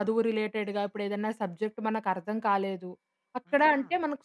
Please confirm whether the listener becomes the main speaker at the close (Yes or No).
No